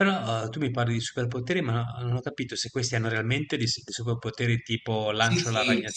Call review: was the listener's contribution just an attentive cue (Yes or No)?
No